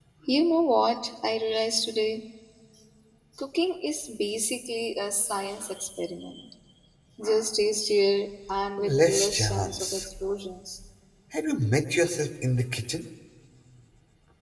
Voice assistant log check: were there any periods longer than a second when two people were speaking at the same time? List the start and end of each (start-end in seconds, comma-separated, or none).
8.8-10.1